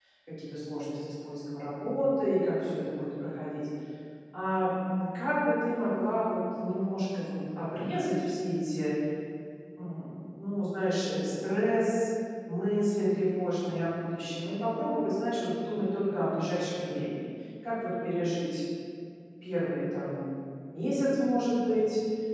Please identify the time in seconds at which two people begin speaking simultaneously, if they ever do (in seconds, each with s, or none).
none